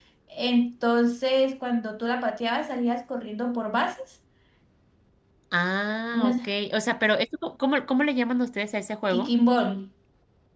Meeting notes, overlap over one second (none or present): none